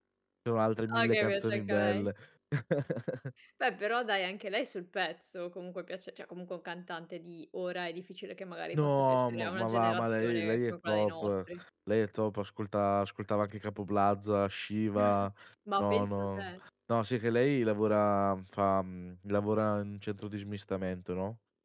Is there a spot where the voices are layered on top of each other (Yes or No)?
Yes